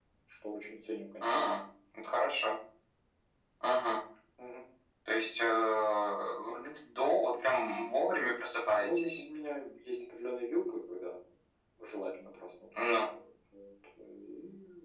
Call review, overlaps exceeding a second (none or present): none